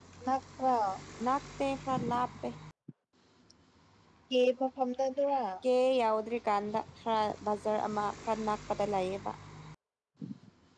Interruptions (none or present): none